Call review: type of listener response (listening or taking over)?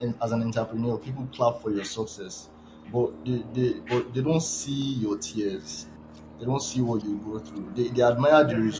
listening